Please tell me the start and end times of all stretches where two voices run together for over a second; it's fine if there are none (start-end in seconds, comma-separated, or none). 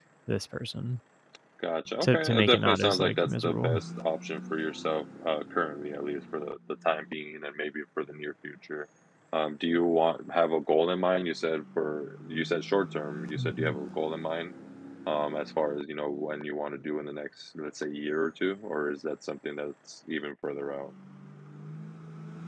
2.0-3.8